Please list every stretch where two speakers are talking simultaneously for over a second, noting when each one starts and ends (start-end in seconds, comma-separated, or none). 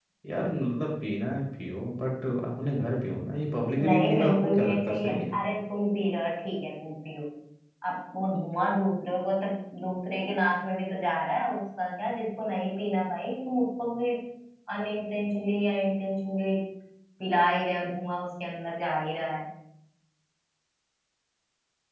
3.9-5.2